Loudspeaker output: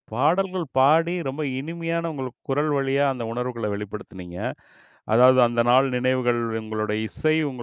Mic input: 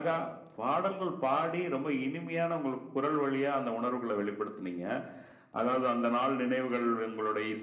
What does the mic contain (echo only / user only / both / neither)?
echo only